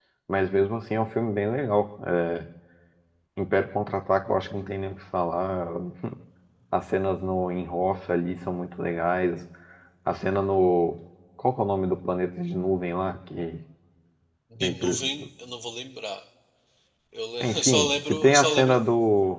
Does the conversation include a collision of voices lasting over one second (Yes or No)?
Yes